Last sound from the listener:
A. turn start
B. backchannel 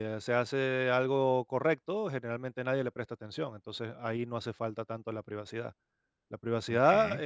B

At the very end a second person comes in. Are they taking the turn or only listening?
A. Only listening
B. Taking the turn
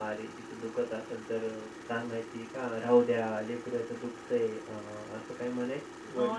B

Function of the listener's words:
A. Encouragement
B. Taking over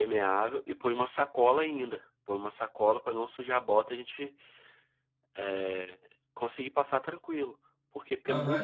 B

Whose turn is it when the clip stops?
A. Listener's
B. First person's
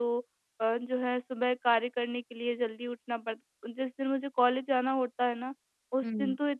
B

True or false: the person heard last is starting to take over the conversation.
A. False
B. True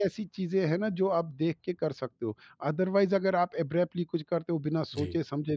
A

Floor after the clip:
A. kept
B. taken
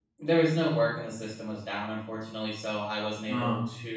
A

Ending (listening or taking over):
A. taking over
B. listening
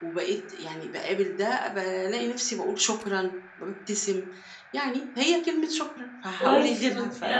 A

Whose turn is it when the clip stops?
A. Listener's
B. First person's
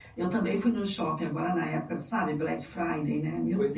A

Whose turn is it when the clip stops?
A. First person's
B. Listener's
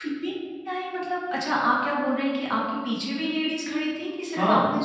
B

